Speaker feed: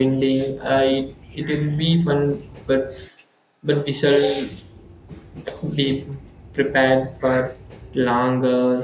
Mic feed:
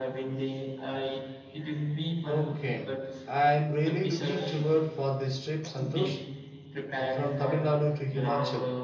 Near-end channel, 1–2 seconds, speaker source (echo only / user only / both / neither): echo only